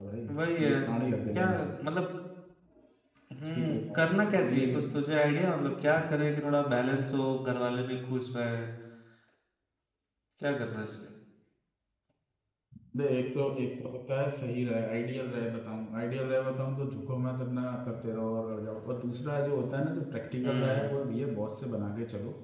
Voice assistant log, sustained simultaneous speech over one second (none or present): present